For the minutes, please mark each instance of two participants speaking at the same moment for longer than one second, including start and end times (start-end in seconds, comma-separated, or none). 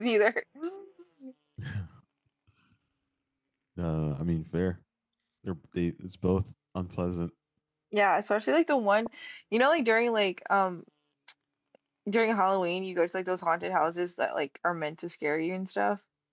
none